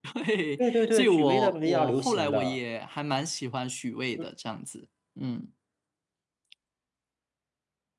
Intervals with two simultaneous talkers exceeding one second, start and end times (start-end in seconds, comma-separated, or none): 0.6-2.6